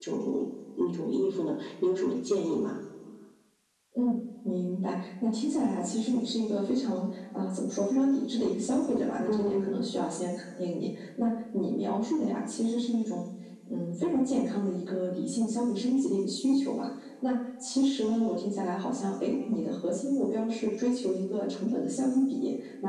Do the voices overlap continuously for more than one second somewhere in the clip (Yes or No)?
No